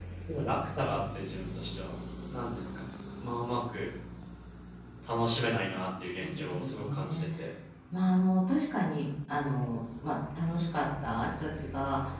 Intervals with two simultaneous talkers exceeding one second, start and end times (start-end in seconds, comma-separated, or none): 6.0-7.2